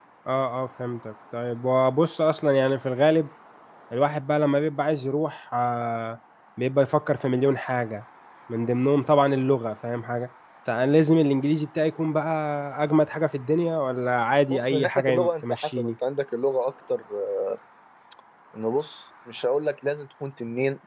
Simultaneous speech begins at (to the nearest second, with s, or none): 15 s